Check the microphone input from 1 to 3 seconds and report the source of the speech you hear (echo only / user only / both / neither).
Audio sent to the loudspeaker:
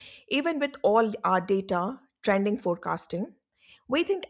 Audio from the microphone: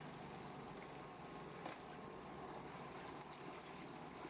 neither